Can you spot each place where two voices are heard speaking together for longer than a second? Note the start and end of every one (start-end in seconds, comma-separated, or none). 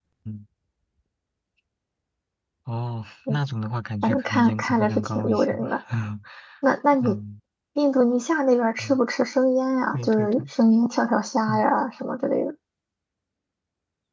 4.0-5.8